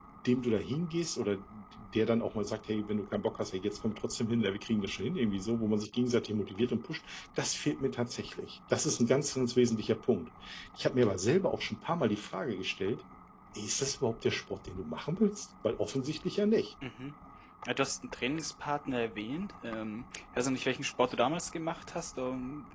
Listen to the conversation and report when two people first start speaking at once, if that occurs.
none

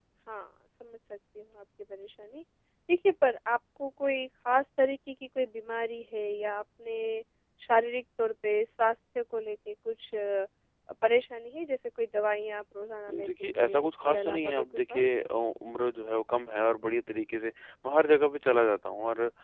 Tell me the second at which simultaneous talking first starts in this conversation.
13.1 s

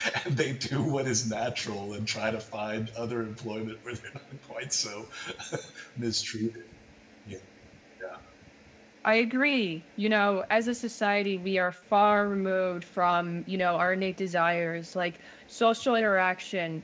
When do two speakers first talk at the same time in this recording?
none

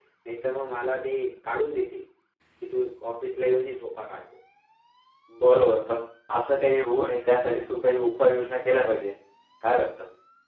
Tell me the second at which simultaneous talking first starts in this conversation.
none

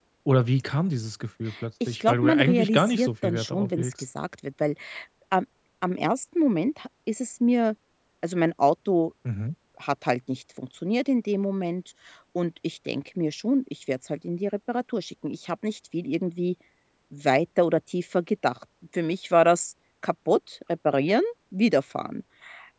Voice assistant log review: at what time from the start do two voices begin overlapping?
1.9 s

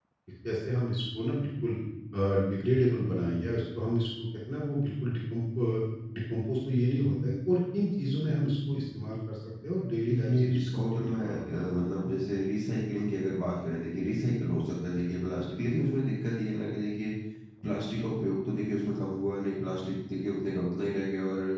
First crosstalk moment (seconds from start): 10.1 s

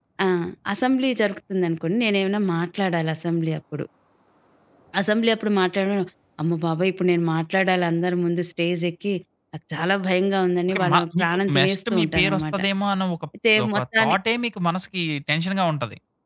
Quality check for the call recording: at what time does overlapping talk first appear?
10.7 s

